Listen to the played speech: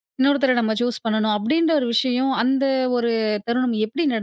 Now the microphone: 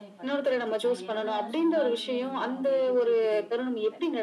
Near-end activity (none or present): present